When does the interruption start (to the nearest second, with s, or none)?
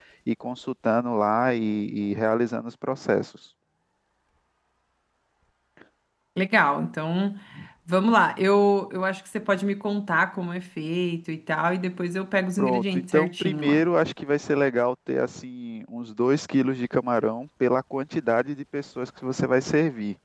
13 s